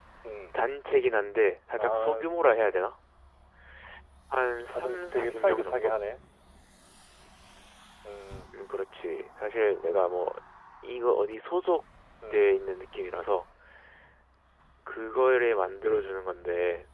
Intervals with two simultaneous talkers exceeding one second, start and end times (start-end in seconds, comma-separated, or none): 4.7-5.9